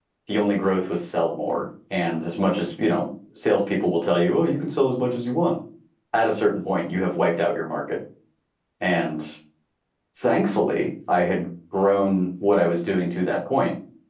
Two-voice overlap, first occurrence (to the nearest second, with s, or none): none